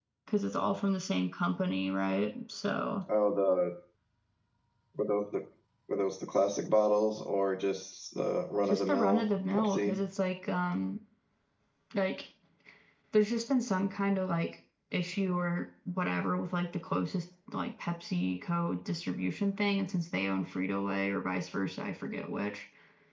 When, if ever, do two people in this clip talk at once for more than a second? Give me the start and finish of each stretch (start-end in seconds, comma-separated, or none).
8.6-10.0